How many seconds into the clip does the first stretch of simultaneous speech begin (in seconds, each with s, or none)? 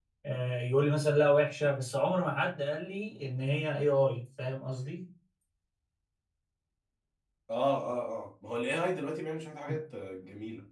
none